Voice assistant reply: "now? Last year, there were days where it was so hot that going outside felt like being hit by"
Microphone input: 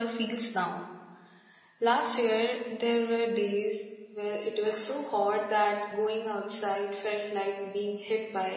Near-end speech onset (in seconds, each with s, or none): none